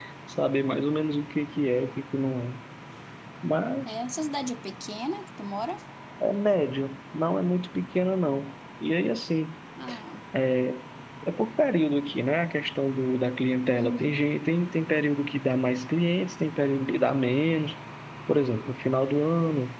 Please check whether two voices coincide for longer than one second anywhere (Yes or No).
No